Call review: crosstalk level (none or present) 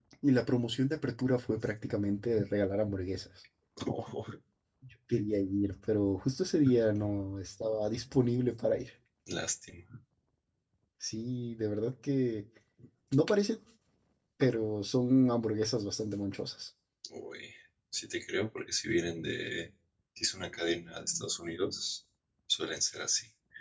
none